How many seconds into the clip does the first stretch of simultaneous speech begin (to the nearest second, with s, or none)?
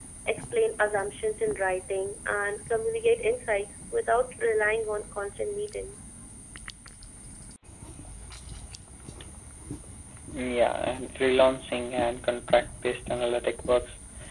none